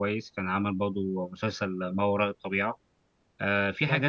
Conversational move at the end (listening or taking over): listening